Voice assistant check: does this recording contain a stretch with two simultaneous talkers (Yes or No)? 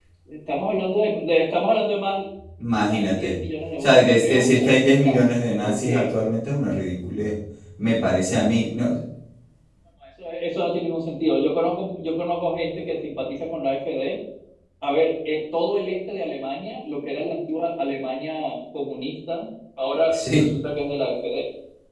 Yes